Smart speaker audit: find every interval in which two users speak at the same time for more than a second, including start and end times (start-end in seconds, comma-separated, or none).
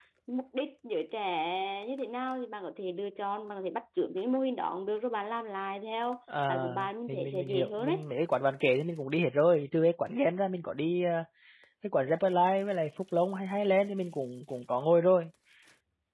6.5-8.1